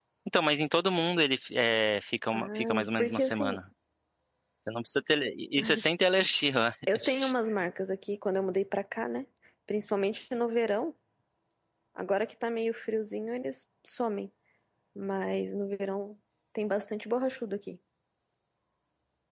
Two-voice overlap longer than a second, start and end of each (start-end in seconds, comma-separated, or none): 2.3-3.6